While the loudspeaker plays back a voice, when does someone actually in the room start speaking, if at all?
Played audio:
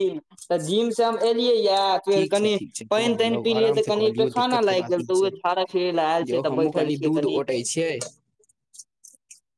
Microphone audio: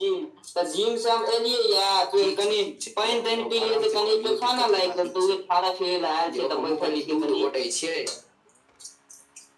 none

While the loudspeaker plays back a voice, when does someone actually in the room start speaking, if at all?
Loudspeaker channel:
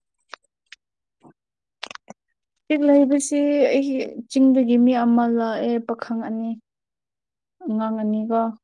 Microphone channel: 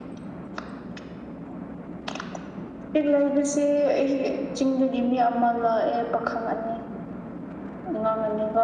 none

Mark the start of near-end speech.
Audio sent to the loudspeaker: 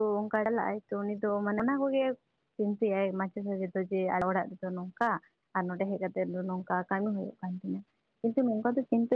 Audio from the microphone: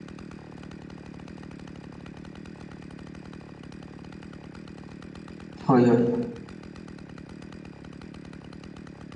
5.7 s

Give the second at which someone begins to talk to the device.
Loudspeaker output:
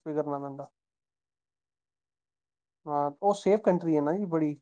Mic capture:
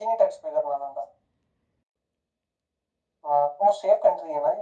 none

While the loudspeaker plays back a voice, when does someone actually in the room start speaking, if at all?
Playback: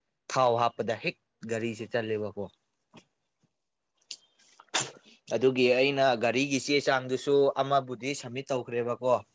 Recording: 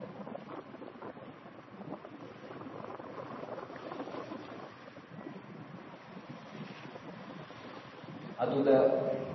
8.4 s

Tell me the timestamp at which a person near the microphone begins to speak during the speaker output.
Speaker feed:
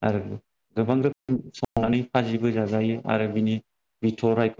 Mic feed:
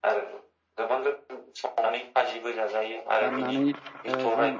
3.2 s

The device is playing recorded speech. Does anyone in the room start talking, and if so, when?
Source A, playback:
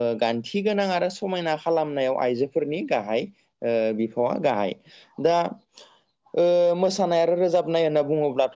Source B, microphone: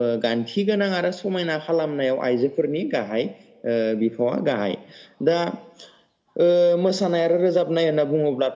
none

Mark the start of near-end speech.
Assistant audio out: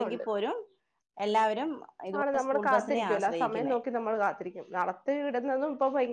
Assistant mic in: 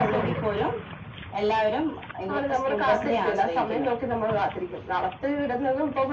none

